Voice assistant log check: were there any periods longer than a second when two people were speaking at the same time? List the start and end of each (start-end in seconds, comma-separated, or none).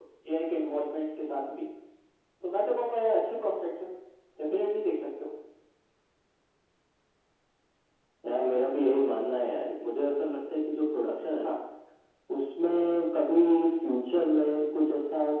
none